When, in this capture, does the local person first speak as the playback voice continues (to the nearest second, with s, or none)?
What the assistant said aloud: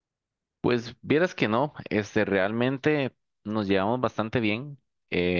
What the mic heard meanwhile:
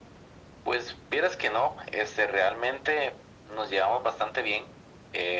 none